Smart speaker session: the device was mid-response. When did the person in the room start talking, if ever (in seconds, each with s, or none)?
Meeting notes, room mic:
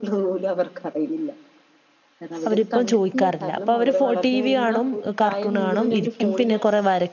2.5 s